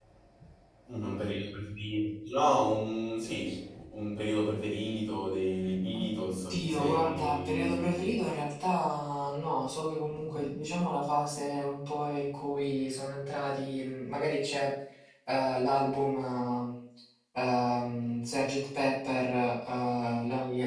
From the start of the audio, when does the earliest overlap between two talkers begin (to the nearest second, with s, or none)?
6 s